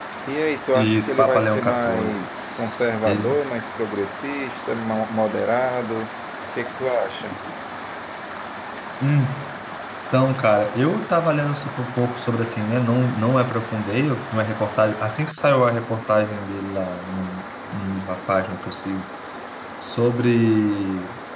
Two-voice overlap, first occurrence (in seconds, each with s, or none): 0.8 s